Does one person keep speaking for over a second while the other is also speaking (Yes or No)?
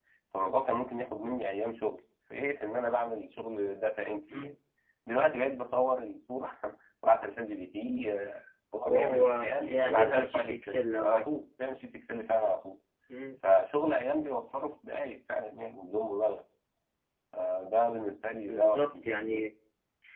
Yes